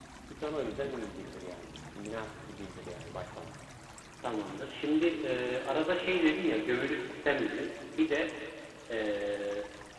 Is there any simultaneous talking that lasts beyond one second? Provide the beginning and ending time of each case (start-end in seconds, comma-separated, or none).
none